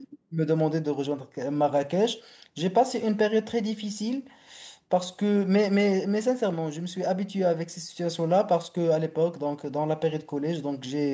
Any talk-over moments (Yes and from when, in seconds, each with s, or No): No